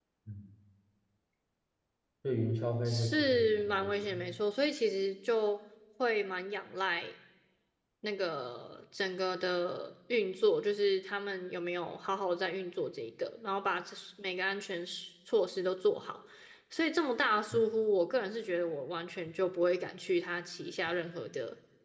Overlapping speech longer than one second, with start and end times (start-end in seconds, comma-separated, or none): 2.9-4.3